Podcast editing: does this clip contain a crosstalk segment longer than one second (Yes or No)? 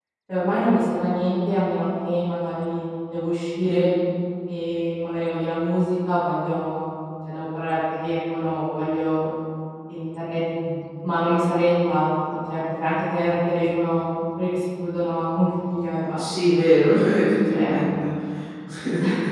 No